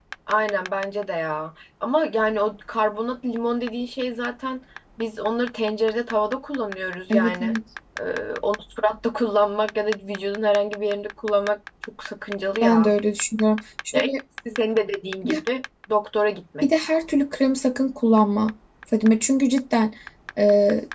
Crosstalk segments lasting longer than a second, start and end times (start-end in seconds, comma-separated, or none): none